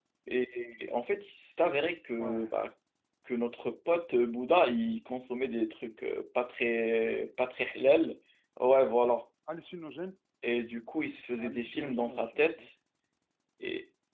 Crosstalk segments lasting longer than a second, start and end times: 11.4-12.6

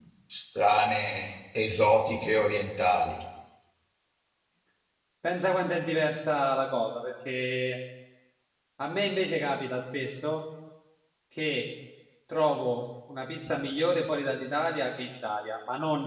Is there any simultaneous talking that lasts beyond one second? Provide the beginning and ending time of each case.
none

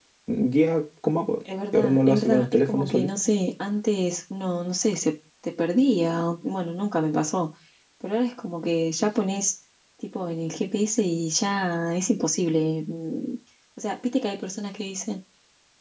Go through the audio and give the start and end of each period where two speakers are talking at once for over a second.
1.7-3.1

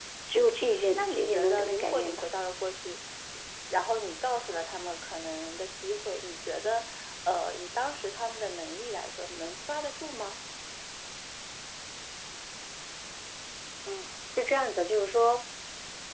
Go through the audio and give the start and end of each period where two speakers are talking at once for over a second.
0.9-2.2

